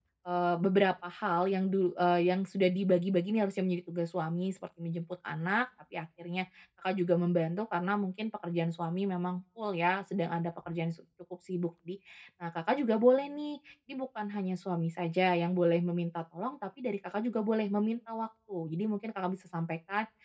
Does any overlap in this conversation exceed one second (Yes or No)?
No